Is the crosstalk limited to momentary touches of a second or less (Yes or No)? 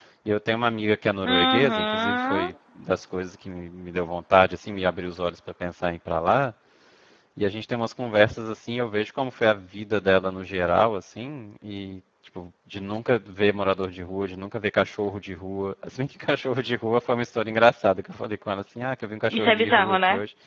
No